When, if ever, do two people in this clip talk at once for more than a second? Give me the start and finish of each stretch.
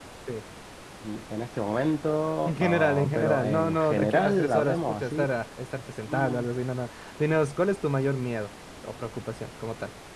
2.4-5.2

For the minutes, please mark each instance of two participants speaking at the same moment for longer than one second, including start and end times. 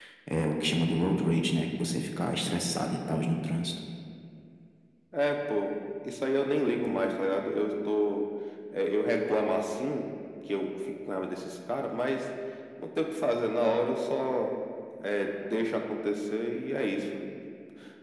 none

